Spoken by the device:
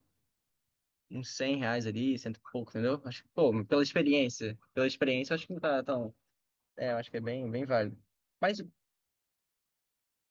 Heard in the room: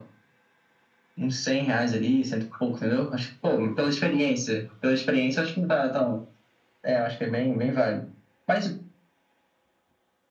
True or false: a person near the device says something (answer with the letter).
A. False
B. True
A